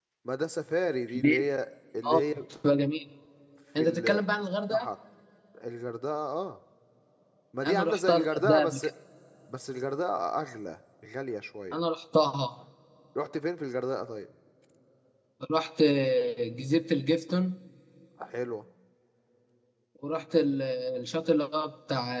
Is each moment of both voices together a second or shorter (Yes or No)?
No